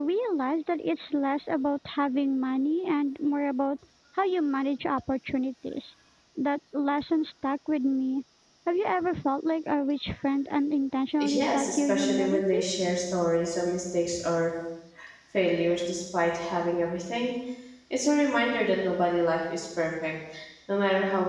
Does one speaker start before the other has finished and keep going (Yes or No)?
Yes